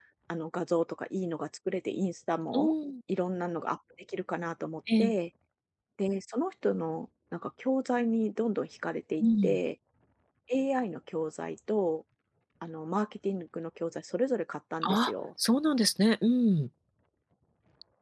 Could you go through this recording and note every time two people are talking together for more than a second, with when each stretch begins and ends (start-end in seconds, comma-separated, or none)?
none